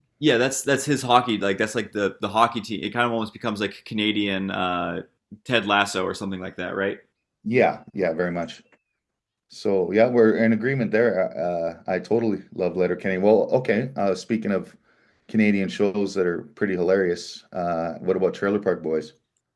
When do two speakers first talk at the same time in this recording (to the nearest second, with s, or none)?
none